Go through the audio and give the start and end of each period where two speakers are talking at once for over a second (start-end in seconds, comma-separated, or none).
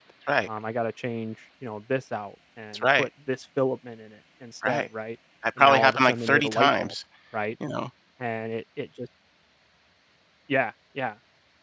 5.6-6.9